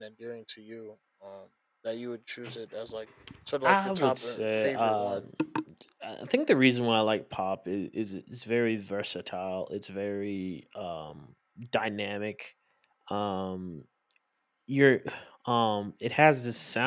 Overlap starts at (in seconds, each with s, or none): 3.6 s